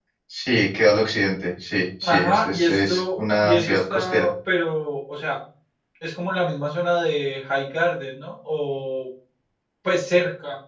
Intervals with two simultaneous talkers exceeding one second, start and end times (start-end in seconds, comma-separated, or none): 2.0-4.3